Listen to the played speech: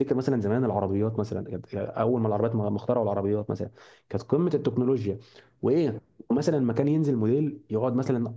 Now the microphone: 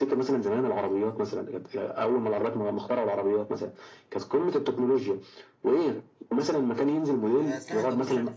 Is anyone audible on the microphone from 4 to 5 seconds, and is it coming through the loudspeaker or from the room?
echo only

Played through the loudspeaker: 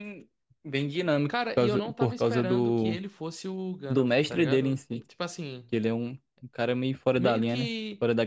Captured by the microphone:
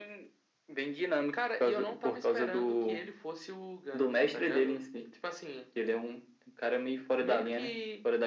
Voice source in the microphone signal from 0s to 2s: echo only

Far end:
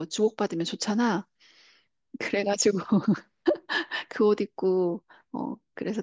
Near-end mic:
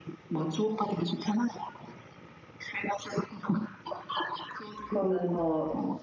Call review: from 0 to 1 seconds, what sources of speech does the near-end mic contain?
echo only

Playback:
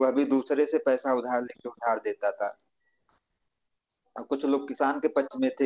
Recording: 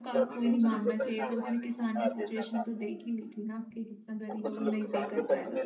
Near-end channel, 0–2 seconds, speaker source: both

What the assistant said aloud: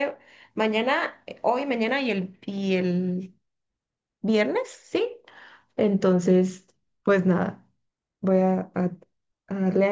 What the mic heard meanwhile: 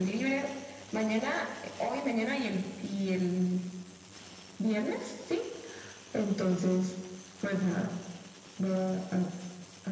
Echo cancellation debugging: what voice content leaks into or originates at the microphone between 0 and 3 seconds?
echo only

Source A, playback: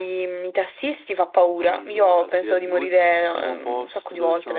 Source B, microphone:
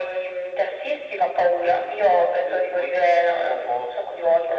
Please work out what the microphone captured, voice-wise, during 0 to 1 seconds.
echo only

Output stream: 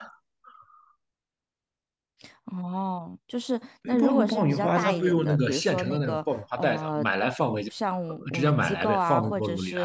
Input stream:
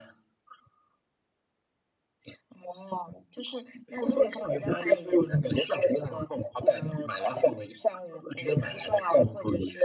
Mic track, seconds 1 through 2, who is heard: neither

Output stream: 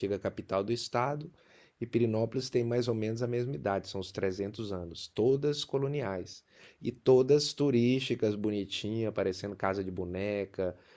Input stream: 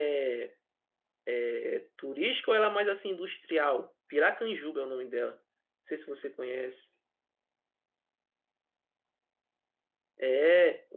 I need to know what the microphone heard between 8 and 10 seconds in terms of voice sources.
neither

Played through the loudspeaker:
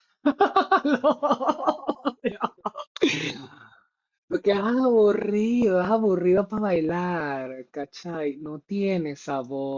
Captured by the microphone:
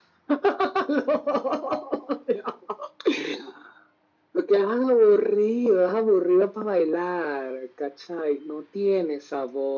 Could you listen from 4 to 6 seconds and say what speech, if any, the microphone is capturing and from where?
echo only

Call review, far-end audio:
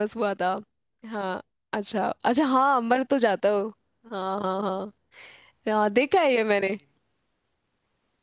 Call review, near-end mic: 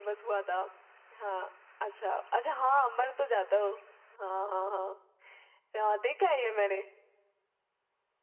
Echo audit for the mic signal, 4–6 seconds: echo only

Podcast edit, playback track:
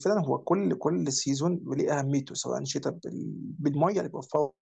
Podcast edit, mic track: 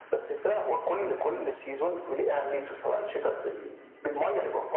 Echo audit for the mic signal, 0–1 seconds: echo only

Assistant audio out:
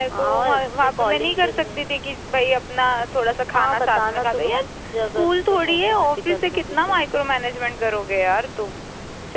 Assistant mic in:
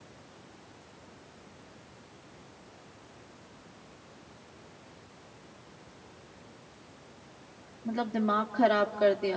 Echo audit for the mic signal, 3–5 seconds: neither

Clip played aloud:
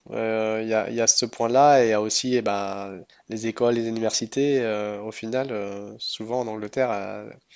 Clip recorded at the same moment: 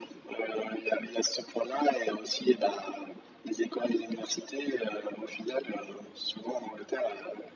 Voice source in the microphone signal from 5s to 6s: echo only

